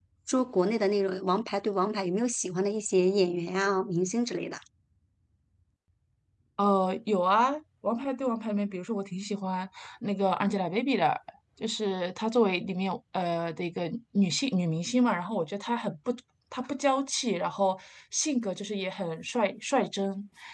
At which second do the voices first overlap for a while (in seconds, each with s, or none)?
none